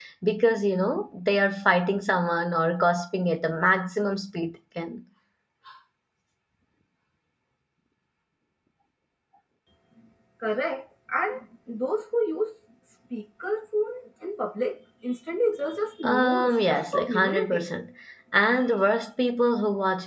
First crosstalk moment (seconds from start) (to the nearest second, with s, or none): 16 s